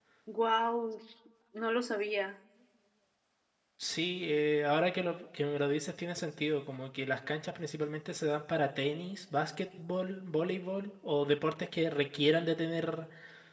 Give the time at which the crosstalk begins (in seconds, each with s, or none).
none